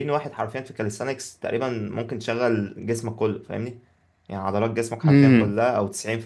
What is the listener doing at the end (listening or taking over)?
listening